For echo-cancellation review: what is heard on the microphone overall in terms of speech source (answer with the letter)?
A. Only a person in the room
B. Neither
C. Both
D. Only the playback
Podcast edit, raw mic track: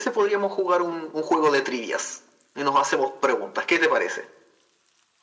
D